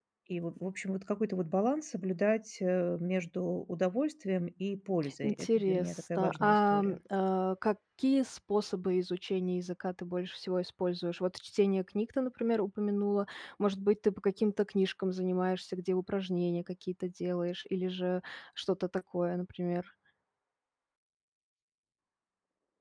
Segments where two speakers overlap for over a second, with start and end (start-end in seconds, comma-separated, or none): 5.2-7.0